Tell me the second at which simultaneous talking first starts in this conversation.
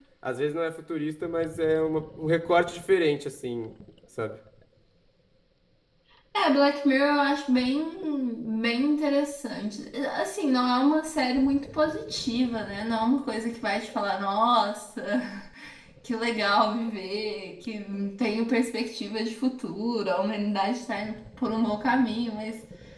none

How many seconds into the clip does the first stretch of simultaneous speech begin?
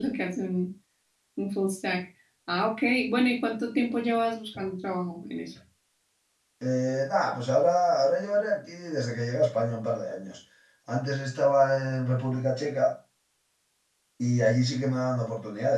none

